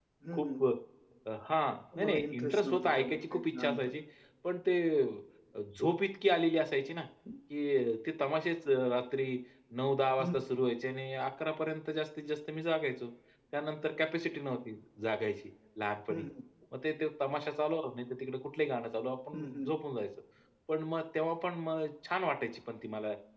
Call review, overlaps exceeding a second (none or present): present